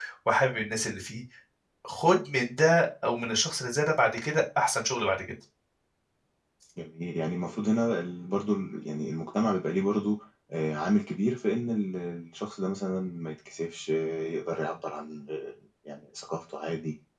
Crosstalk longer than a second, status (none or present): none